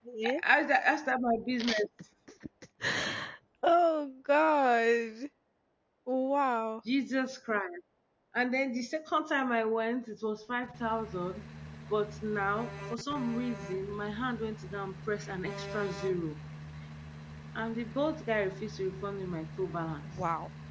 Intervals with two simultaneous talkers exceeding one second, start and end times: none

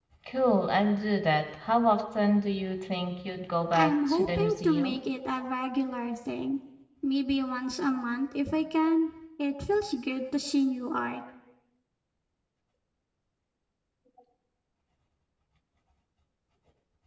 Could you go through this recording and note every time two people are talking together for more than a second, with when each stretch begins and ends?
3.7-5.0

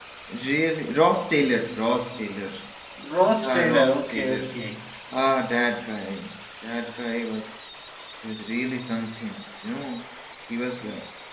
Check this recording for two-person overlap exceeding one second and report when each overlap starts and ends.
3.3-4.6

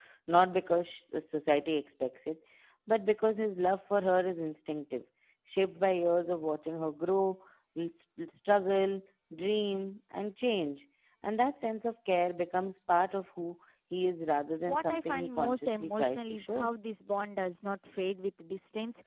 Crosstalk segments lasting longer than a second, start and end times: 14.7-16.7

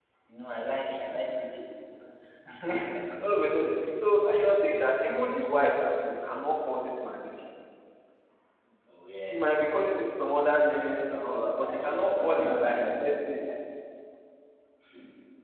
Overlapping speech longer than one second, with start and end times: 11.7-13.1

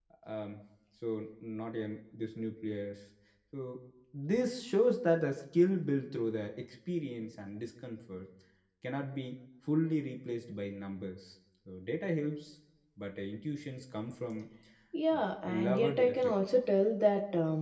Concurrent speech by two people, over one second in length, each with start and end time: 15.1-16.3

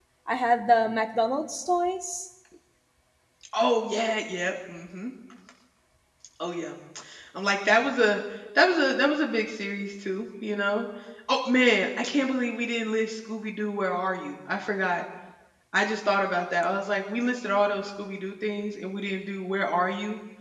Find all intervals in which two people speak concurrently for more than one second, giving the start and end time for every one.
none

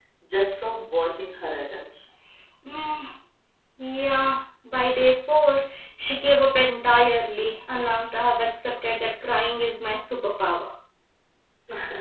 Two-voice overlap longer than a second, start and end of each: none

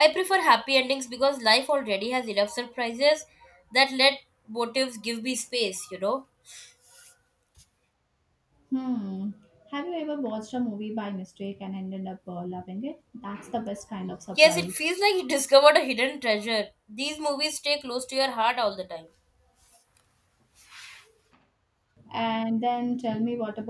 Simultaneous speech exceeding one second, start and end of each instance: none

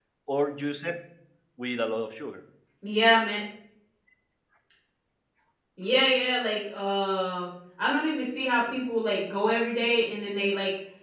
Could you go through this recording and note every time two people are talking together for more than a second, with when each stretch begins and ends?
none

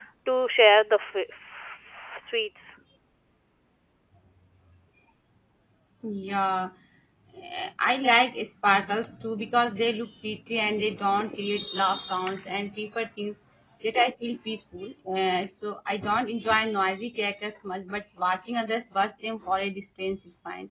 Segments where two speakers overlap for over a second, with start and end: none

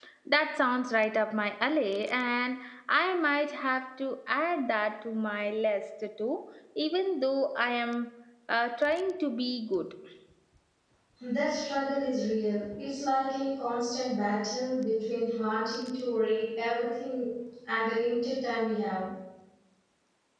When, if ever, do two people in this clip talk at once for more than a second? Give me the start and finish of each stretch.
none

